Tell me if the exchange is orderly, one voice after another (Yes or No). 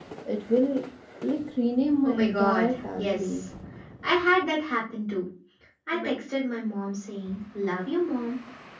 No